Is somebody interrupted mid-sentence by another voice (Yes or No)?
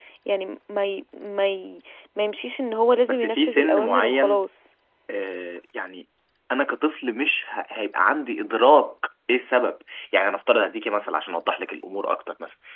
Yes